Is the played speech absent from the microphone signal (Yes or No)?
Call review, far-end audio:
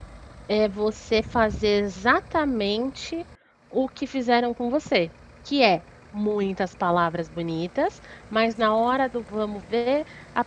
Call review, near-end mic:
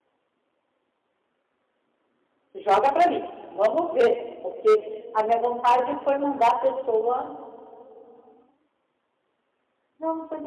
Yes